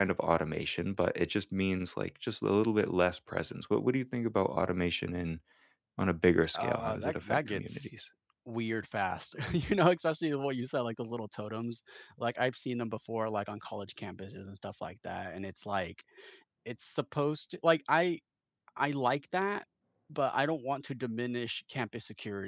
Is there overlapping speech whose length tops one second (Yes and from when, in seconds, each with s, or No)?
Yes, from 6.5 s